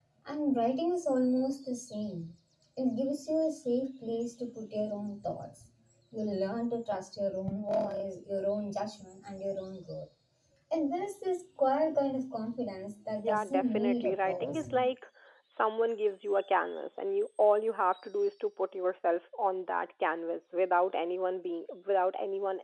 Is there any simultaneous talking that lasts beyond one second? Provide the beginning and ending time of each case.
13.2-14.7

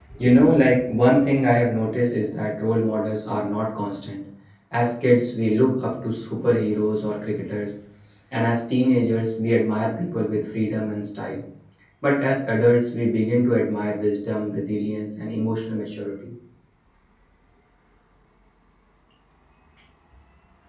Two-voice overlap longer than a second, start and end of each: none

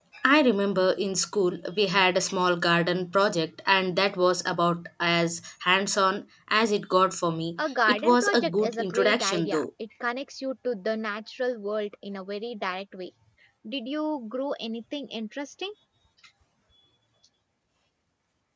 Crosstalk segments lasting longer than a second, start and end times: 7.9-9.6

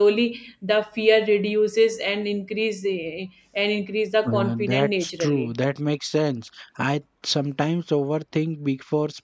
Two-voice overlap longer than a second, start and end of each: 4.3-5.5

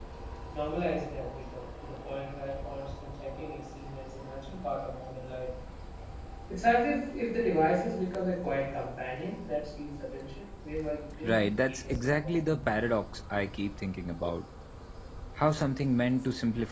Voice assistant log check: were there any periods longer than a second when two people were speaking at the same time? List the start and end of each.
11.2-12.4

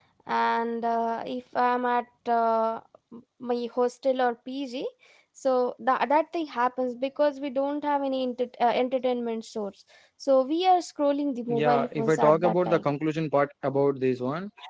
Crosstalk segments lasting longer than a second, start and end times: 11.6-12.9

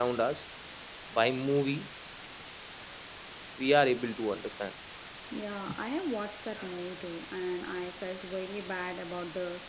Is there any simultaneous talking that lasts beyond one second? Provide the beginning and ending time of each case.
none

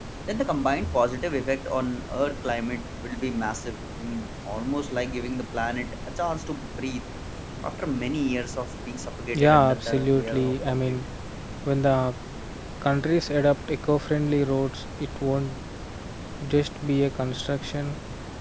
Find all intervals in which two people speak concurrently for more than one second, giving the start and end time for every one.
9.3-11.0

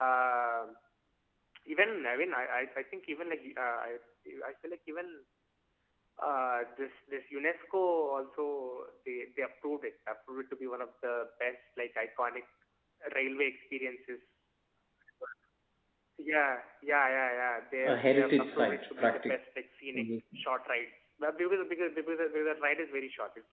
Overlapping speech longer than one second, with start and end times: 17.8-19.4

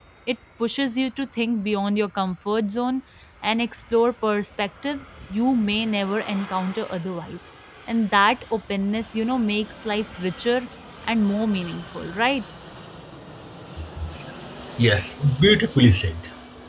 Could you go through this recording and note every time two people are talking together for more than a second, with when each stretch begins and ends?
none

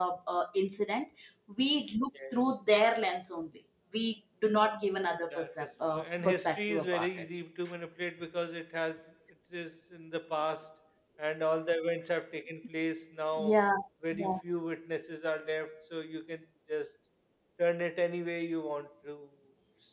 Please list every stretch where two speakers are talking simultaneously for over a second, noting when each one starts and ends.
5.3-7.2

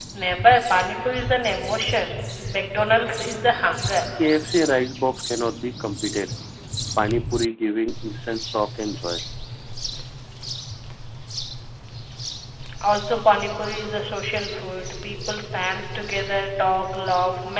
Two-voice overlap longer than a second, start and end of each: none

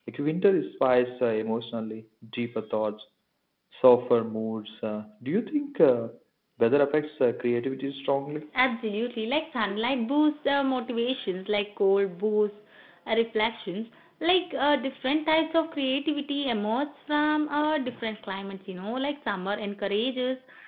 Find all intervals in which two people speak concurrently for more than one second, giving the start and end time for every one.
none

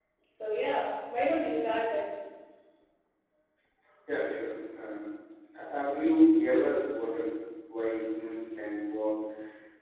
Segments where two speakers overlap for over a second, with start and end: none

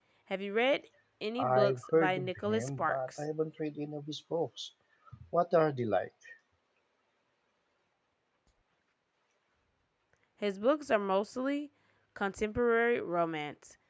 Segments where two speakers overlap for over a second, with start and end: 1.4-3.2

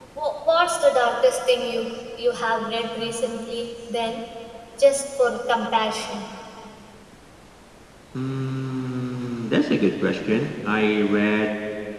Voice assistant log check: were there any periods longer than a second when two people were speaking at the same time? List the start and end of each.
none

